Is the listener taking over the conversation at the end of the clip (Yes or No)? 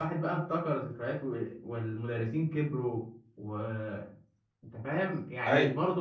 No